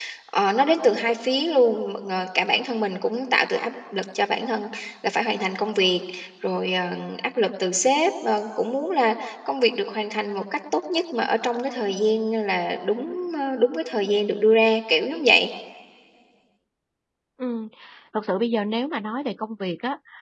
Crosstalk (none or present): none